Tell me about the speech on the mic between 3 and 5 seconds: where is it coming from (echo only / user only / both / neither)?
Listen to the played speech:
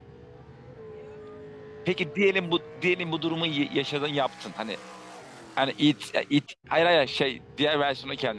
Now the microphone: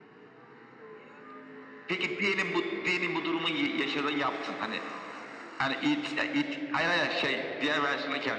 echo only